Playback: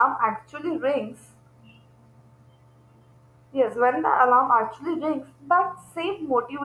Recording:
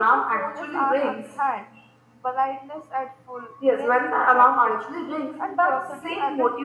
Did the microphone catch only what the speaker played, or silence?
No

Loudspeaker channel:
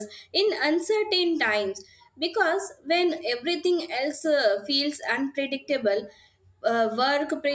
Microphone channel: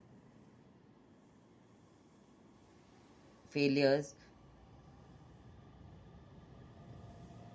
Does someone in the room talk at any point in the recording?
Yes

